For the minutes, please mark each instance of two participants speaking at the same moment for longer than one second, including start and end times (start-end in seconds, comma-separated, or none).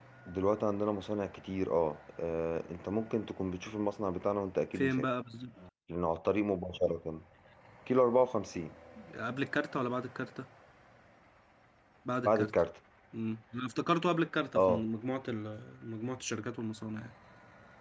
none